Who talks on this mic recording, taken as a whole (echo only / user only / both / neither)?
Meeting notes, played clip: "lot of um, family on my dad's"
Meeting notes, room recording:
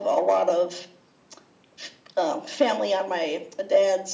echo only